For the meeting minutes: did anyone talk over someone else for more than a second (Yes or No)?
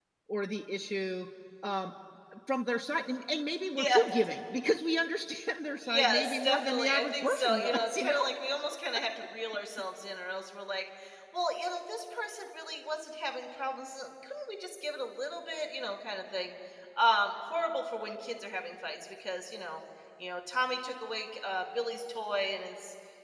Yes